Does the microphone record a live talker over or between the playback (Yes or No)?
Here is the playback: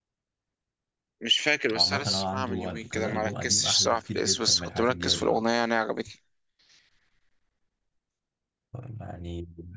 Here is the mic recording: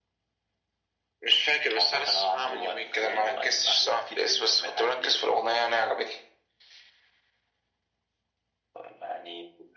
No